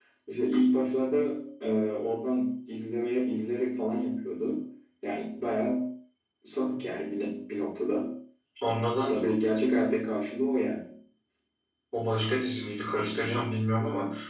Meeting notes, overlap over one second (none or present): none